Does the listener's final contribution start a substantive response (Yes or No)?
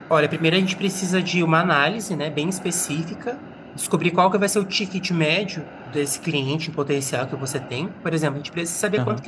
No